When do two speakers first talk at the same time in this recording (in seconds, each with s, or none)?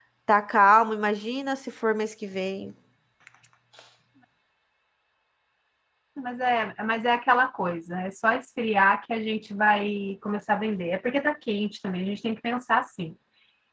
none